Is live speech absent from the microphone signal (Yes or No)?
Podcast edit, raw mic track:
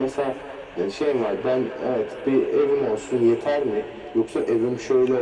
Yes